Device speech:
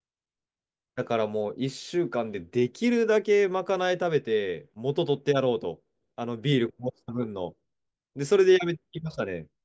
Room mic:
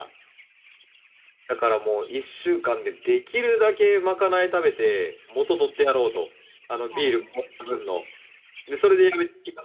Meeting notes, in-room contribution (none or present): present